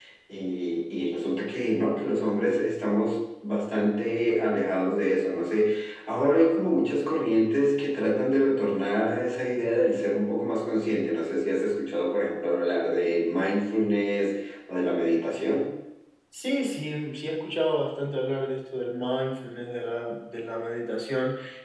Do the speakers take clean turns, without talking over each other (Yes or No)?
Yes